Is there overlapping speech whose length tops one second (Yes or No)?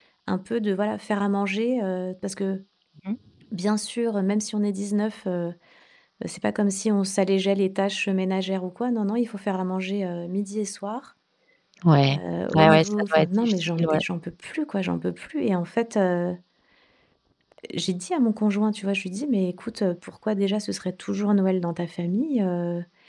Yes